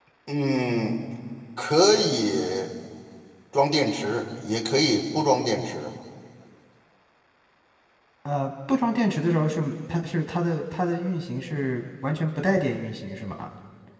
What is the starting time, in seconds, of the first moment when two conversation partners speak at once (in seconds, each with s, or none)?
none